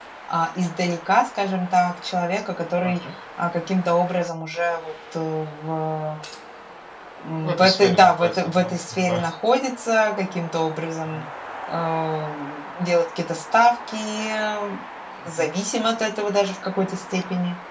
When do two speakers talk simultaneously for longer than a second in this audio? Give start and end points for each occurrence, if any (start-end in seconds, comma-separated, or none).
7.4-9.2